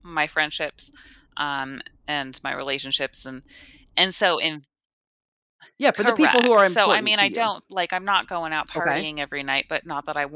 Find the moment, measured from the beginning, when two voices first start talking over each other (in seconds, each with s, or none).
6.0 s